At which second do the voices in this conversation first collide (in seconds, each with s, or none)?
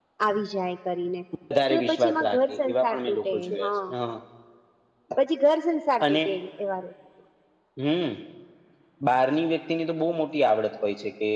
1.7 s